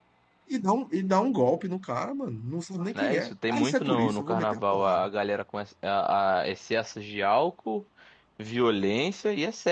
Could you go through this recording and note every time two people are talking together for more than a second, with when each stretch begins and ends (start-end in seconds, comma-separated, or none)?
3.0-5.1